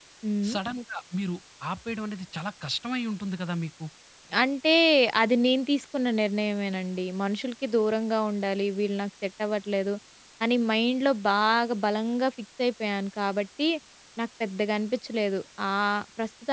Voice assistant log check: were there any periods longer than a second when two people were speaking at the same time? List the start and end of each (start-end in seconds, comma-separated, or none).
none